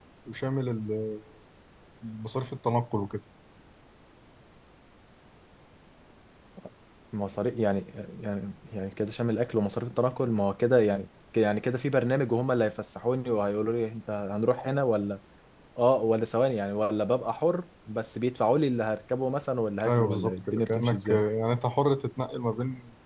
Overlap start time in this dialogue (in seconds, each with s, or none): 19.8 s